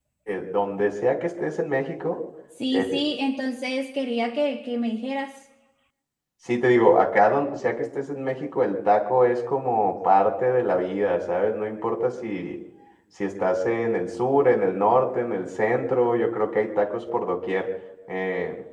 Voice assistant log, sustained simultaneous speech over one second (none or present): none